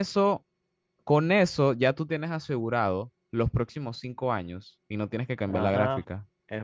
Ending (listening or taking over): taking over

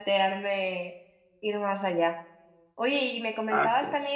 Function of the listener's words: listening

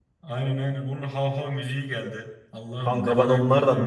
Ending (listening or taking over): taking over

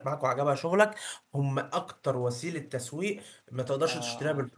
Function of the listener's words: taking over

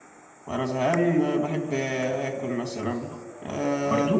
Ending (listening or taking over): listening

